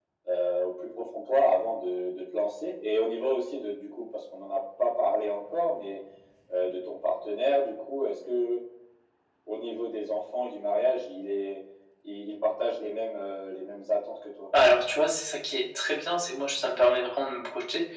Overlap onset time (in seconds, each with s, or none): none